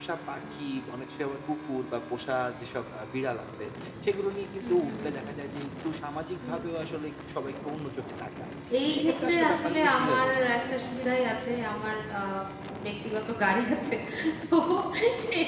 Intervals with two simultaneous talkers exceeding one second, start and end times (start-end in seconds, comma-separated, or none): 8.9-10.6